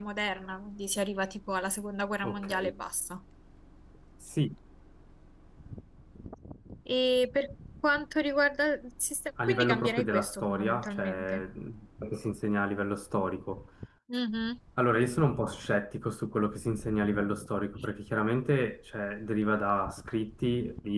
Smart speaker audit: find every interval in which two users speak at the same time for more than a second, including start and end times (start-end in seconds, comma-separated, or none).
9.5-11.4